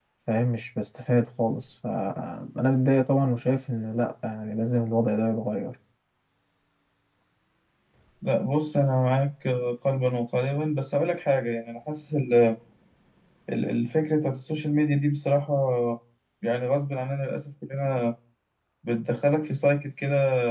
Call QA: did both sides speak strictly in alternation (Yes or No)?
Yes